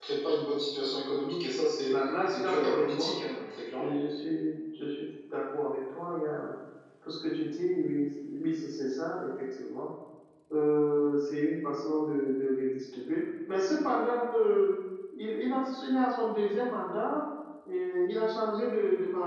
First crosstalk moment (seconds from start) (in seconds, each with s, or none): 1.9 s